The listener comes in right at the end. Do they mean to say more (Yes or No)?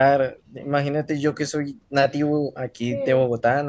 No